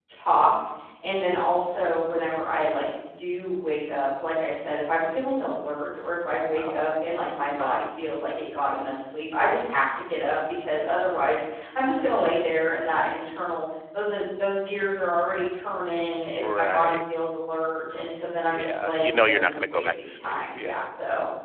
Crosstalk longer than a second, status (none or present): present